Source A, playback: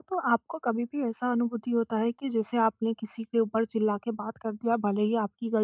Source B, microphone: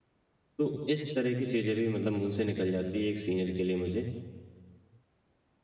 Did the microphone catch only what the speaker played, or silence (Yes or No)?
No